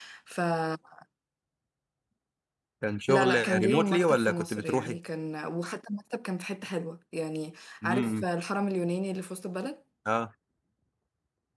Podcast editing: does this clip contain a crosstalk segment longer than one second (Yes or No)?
Yes